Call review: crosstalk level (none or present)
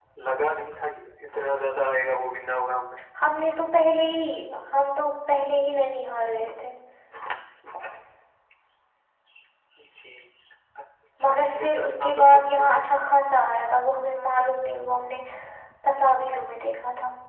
present